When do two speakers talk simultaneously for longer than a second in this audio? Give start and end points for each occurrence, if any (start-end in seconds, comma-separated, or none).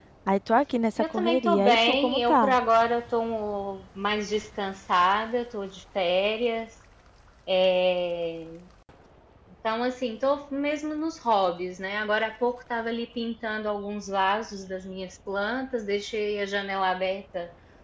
1.0-2.5